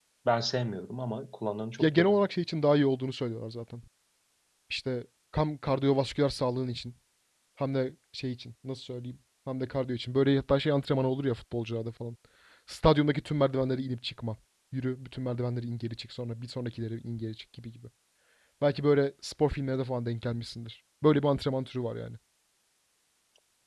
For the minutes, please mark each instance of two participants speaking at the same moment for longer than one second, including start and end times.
none

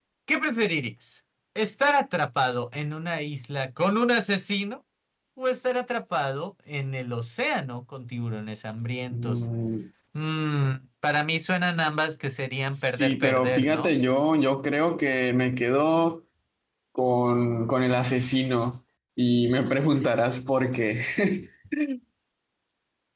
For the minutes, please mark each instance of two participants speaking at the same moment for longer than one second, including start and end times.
12.7-13.9

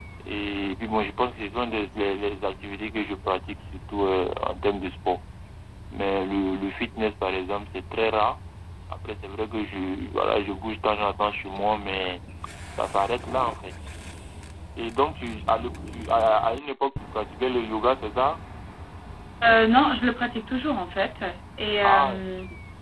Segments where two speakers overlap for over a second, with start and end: none

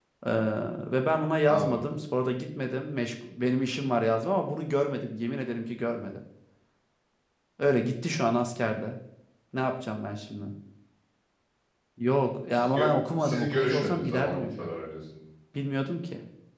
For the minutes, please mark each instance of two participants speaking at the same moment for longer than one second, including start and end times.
12.5-14.7

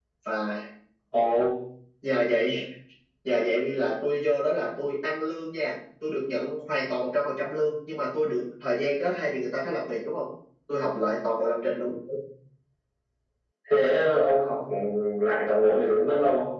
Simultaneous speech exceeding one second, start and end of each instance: none

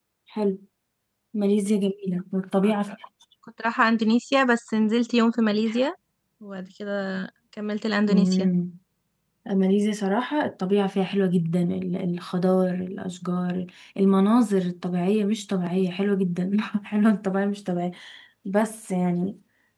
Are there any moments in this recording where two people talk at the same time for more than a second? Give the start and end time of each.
none

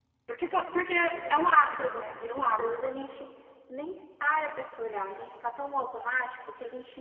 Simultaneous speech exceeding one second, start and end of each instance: 1.1-2.9

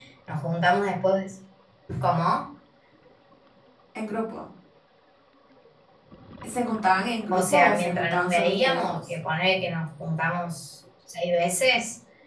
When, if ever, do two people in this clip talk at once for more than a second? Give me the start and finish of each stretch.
7.3-9.1

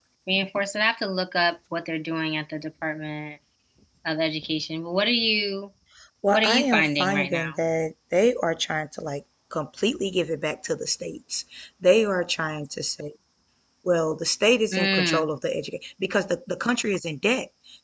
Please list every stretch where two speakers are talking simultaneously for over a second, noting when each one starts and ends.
6.3-7.6

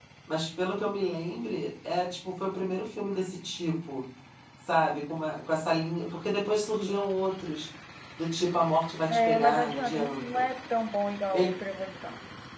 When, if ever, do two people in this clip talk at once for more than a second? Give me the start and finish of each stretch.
9.1-10.4

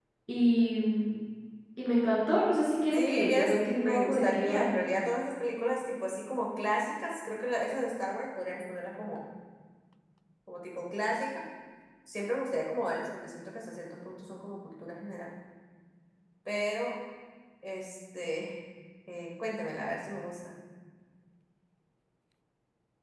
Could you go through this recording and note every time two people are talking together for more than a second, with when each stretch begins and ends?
2.9-4.7

